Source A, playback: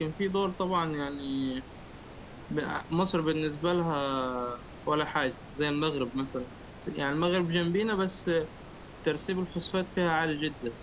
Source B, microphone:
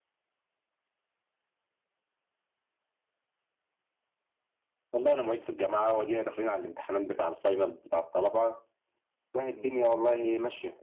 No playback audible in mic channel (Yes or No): Yes